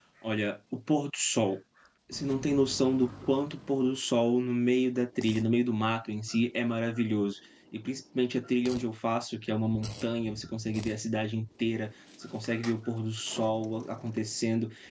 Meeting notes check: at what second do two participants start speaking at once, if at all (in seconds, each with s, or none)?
none